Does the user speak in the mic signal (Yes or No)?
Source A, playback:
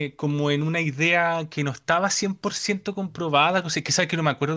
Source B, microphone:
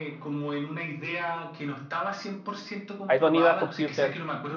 Yes